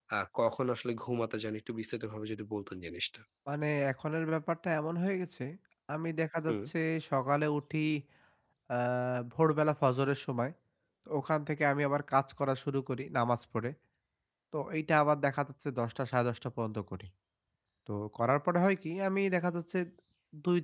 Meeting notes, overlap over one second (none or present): none